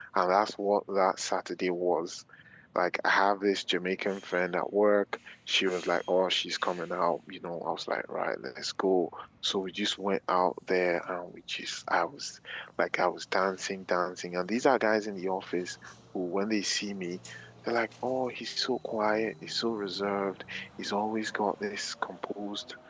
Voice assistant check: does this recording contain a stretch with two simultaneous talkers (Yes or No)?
No